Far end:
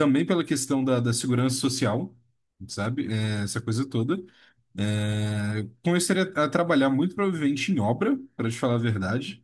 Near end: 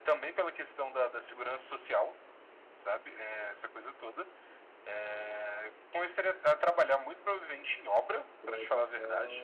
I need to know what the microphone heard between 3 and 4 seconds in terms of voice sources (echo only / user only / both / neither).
echo only